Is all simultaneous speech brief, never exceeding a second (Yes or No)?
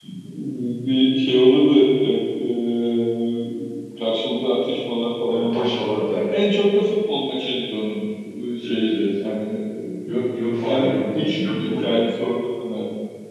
No